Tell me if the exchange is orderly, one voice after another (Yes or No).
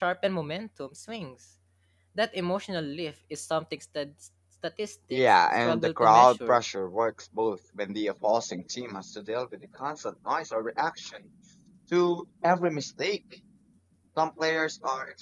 No